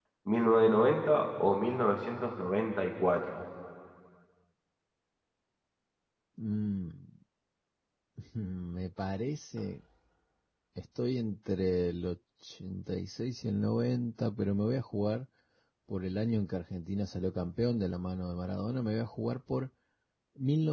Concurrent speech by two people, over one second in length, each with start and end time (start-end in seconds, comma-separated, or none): none